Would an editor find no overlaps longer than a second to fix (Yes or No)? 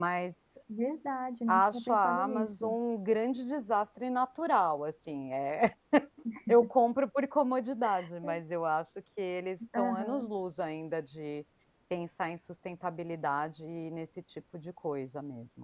No